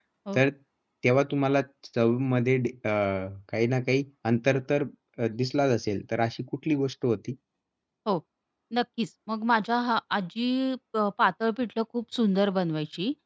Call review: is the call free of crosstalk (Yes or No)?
Yes